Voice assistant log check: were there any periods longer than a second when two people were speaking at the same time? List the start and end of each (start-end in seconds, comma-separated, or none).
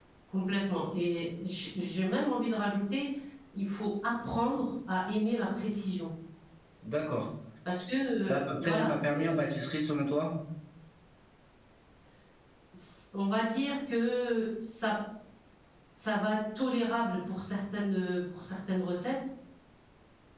8.2-9.5